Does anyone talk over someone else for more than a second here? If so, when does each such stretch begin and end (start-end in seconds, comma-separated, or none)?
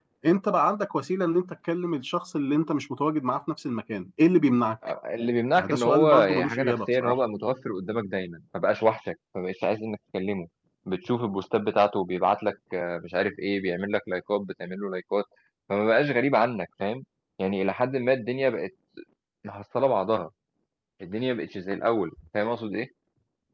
5.5-7.2